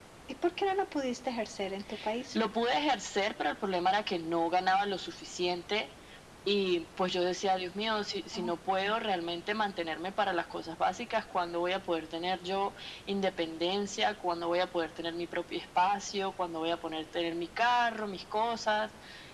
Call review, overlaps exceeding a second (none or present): none